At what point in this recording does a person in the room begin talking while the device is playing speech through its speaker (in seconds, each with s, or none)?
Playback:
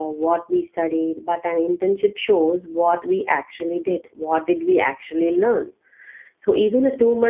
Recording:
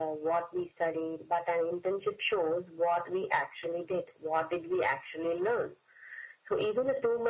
none